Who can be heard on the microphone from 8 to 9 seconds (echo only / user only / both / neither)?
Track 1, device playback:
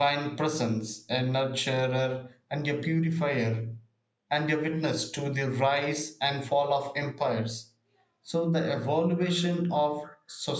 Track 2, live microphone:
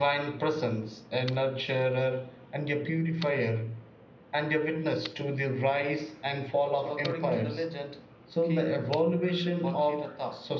both